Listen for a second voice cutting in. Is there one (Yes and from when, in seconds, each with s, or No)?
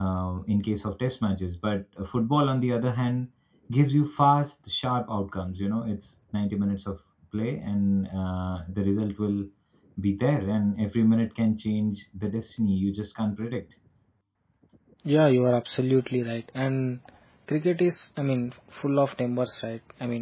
No